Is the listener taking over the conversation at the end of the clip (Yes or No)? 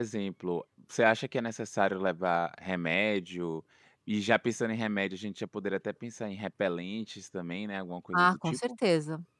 Yes